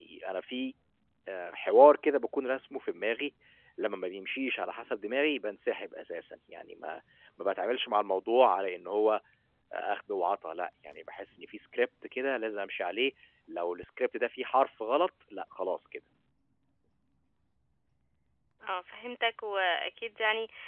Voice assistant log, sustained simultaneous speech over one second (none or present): none